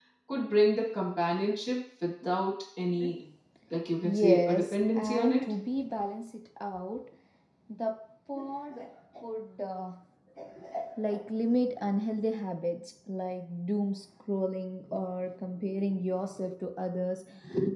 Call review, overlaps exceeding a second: present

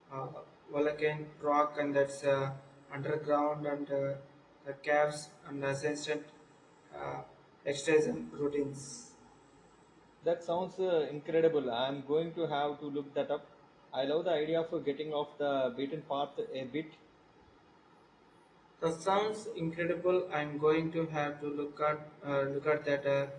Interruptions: none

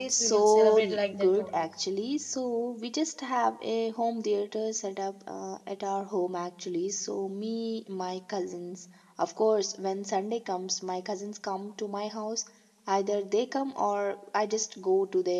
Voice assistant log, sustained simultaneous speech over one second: present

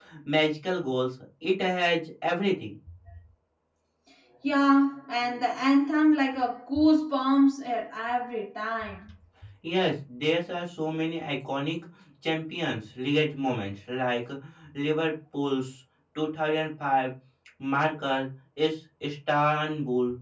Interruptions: none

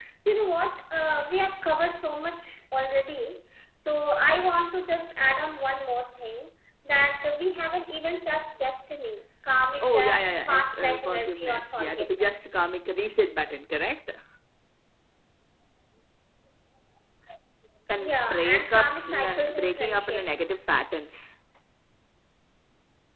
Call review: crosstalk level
present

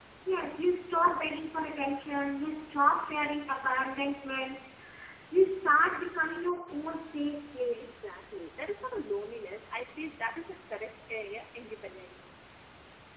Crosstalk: none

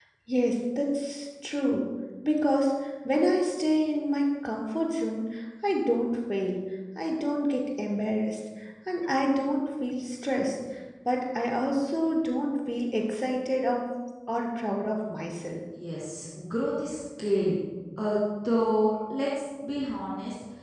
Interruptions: none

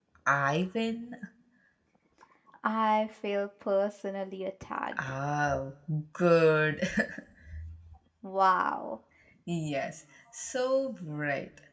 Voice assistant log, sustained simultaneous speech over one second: none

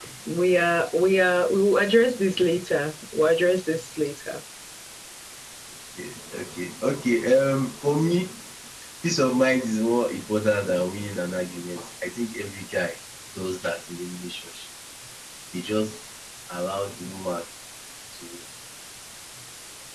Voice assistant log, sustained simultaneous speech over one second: none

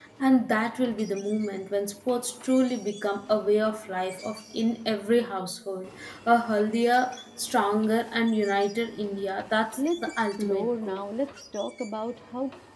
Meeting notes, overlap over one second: present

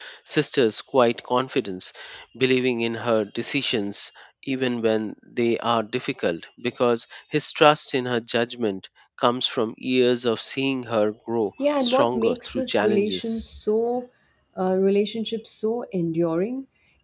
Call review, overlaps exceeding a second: present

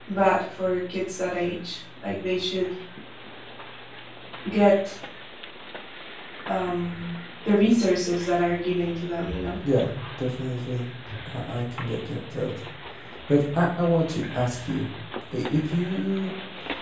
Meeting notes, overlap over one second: none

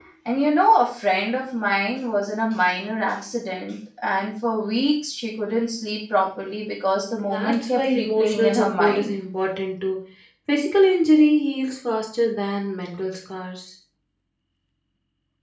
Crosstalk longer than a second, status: present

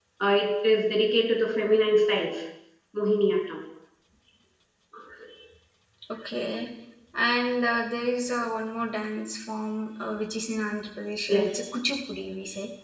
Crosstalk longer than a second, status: none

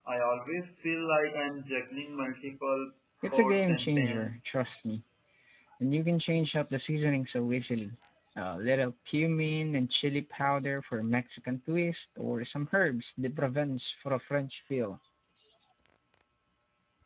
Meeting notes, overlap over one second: present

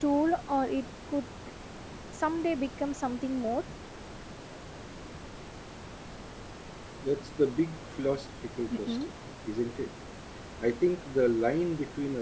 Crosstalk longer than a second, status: none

